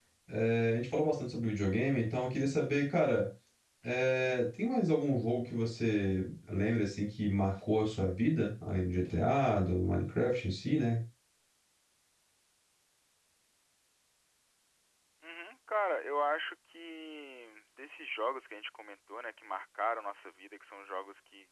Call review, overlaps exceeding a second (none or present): none